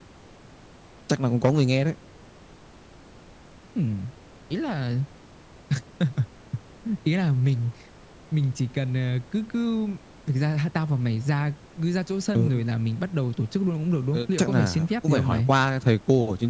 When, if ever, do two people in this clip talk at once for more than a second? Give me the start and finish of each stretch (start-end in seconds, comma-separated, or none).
14.1-15.5